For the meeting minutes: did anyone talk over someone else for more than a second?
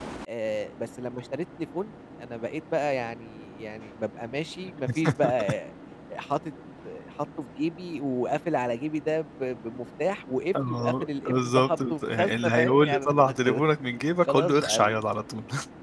Yes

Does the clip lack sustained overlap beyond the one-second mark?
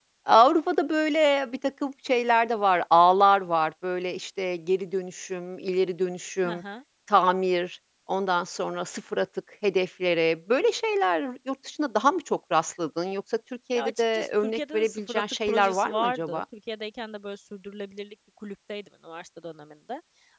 No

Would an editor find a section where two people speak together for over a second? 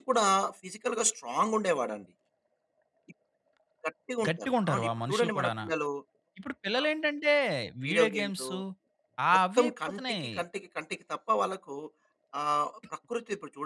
Yes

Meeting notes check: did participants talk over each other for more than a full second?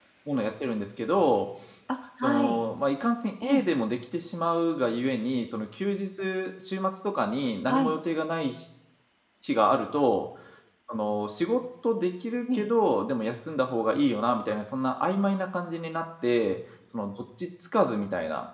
No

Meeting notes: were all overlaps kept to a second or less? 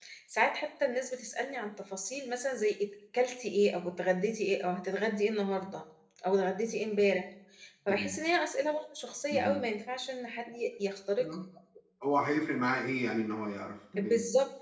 Yes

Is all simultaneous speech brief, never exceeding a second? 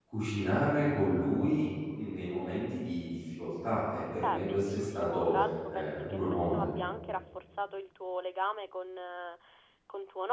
No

